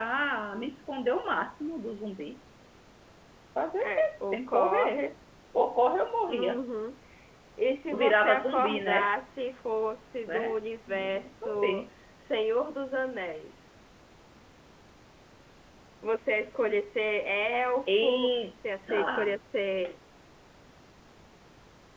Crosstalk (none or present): present